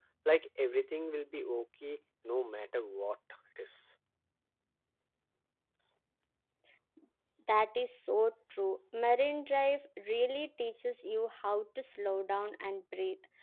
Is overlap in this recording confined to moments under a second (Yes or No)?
Yes